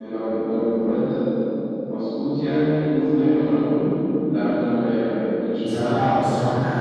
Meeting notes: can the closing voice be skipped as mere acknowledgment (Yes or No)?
No